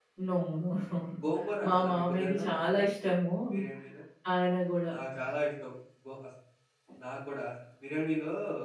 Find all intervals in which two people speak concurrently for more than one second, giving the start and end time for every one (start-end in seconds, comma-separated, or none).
1.6-2.9